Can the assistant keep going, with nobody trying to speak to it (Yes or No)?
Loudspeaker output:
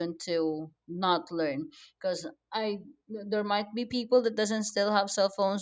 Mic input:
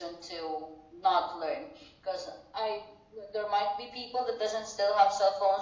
Yes